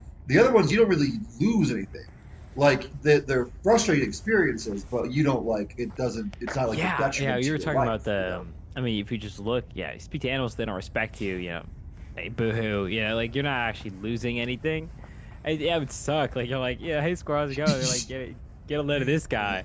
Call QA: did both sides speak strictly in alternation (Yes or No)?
No